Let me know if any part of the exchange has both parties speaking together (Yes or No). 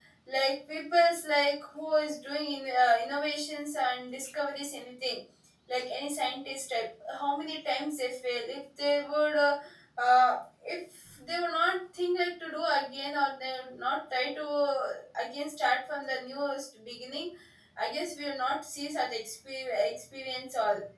No